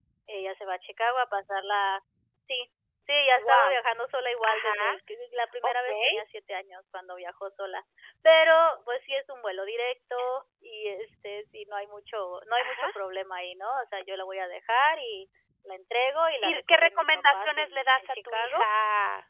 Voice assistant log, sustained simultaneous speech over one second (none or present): present